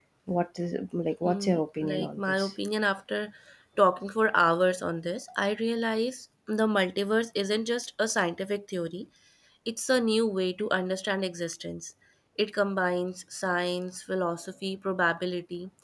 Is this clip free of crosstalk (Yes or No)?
No